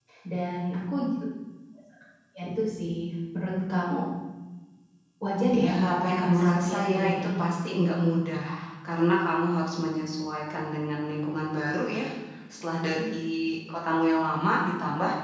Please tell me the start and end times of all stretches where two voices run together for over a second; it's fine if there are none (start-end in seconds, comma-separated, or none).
5.5-7.3